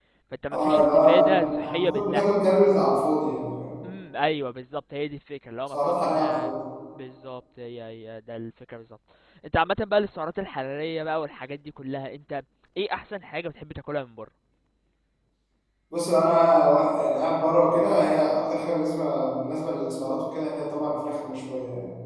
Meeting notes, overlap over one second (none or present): present